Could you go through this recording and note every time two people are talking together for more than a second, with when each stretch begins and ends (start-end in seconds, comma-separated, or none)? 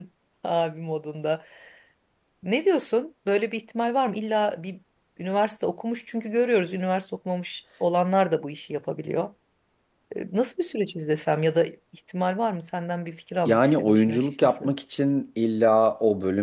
13.4-14.7